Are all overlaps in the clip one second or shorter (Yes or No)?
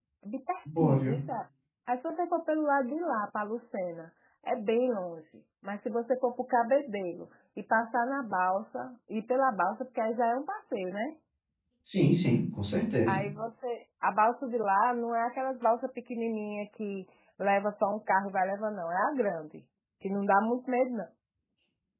Yes